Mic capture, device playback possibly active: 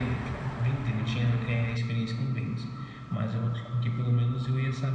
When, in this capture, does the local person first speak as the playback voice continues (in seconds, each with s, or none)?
none